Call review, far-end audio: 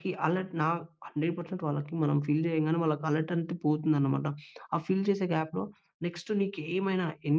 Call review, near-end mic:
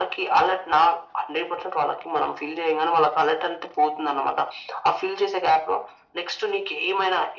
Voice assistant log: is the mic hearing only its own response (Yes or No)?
Yes